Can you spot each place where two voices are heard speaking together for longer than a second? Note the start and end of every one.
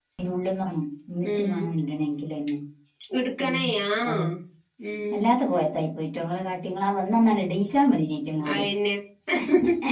none

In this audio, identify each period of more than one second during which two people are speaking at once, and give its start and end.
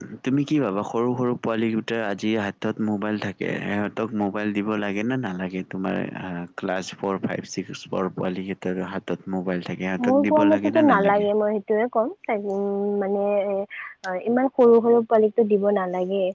10.1-11.3

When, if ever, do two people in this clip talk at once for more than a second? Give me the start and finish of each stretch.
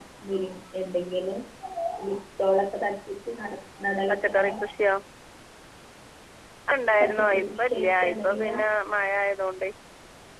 7.0-8.6

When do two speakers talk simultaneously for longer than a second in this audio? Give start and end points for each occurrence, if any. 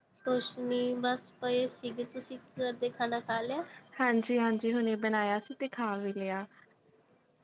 none

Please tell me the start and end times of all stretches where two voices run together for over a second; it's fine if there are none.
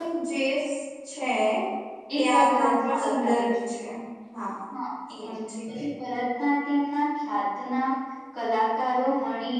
2.1-3.5

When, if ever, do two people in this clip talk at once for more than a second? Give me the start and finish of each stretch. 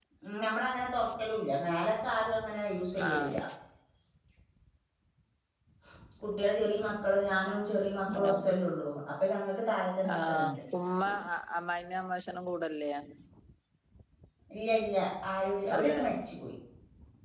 none

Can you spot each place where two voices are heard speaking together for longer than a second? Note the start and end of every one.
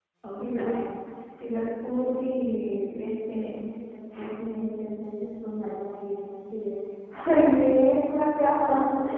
none

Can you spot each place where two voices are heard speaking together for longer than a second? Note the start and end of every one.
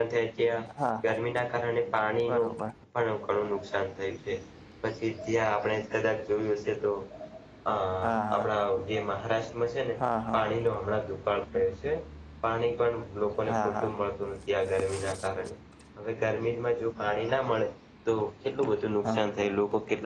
none

